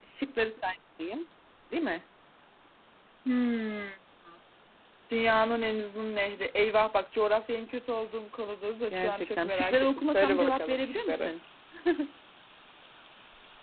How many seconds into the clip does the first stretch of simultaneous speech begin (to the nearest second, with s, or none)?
9 s